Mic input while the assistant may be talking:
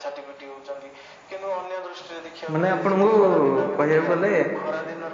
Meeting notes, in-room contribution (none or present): present